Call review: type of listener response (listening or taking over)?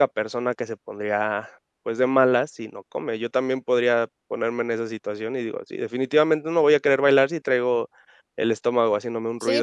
taking over